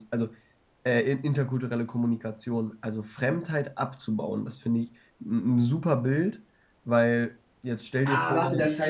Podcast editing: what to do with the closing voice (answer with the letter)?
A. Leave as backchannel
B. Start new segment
B